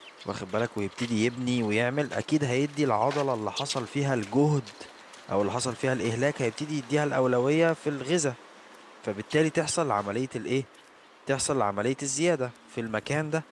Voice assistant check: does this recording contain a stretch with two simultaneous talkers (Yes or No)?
No